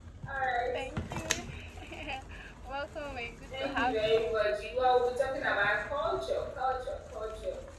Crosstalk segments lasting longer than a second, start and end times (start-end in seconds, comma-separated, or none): 3.6-5.0